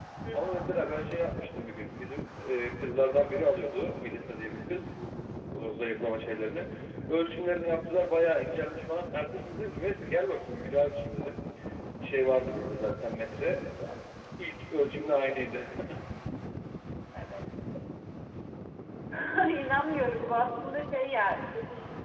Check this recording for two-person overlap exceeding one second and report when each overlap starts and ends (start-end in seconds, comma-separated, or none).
none